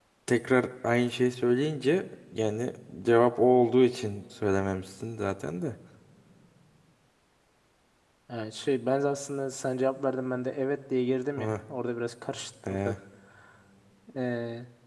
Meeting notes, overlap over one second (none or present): none